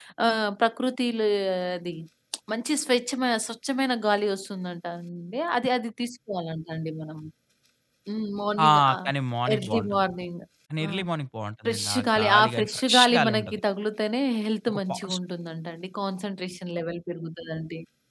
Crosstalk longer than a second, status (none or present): present